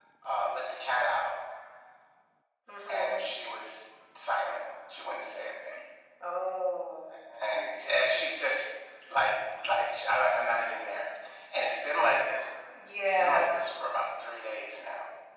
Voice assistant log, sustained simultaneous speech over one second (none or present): none